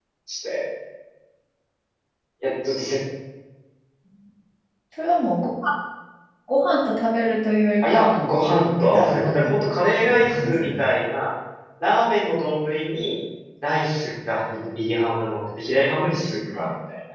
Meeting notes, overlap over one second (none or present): present